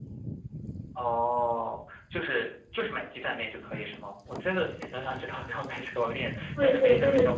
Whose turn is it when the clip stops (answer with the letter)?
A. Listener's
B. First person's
A